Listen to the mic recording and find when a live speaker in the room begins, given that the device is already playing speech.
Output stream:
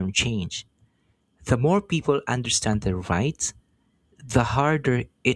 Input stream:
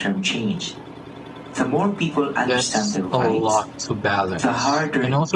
2.5 s

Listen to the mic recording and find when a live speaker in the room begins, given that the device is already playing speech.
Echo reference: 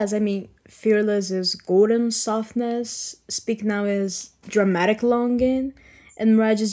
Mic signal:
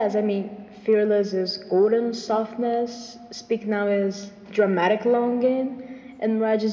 none

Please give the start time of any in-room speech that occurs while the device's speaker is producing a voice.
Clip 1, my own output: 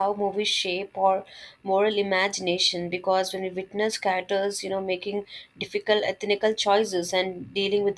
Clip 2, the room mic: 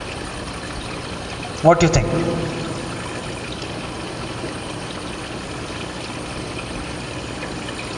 1.6 s

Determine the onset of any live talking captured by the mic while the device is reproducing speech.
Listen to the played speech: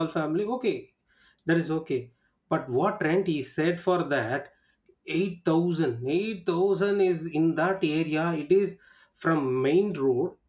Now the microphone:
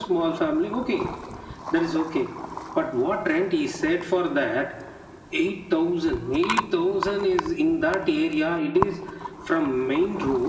none

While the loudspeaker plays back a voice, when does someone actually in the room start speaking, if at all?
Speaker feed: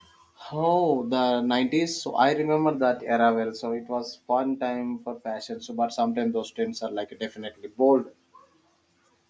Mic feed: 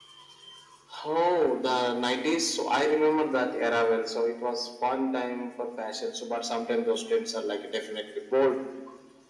none

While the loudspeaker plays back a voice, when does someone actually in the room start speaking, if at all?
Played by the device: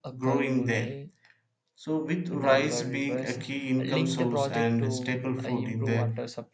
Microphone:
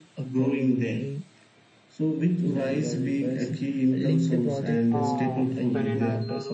4.9 s

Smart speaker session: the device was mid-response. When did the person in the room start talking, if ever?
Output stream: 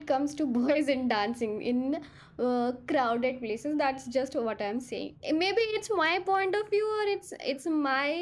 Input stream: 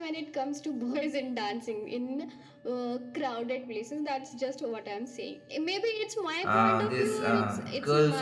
6.4 s

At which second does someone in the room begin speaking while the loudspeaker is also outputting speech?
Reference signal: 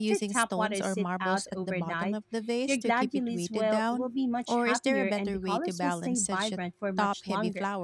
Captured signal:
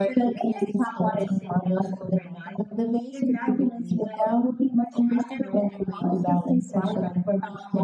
none

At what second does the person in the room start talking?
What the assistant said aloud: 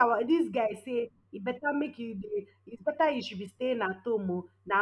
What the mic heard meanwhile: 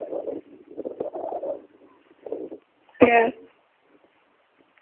3.0 s

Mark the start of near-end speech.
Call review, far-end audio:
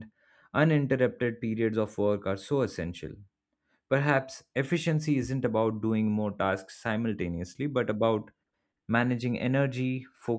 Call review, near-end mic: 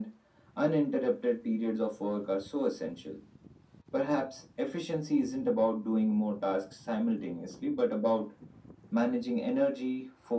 none

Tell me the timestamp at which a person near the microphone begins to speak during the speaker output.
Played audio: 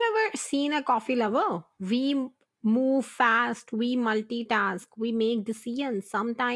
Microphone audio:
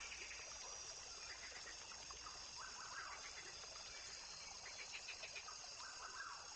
none

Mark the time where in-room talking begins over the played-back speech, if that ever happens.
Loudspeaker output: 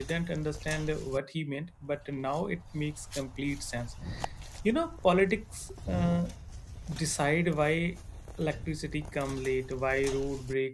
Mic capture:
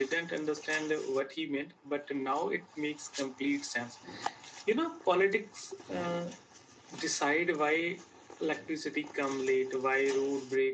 none

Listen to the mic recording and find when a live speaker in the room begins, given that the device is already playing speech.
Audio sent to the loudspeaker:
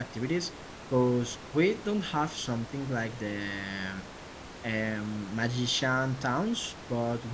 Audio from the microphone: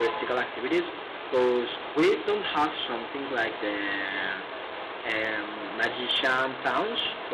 none

